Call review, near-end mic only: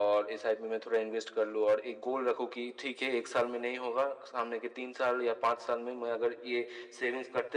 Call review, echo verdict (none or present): present